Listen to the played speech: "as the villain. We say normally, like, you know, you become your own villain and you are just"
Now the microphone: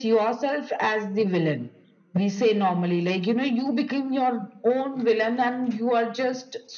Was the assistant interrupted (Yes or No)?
No